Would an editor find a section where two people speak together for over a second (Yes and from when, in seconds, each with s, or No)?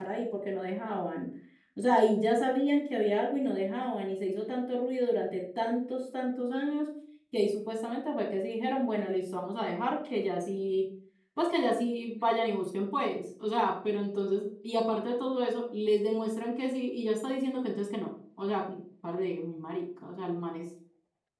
No